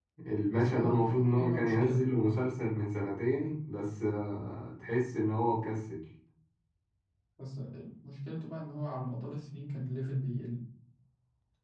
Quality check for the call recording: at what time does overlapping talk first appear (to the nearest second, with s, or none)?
1 s